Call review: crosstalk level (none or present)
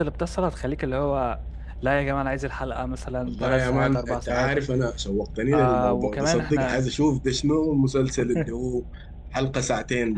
present